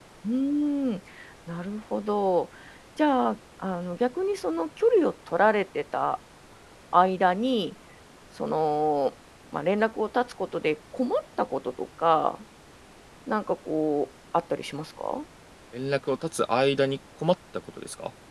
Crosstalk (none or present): none